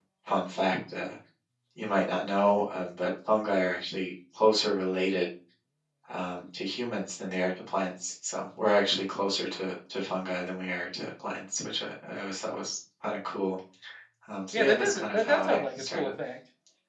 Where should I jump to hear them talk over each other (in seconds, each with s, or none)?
14.5 s